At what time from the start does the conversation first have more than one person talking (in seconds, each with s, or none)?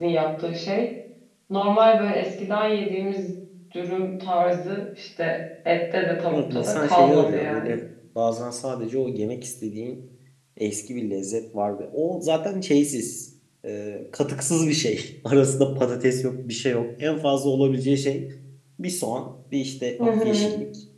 6.3 s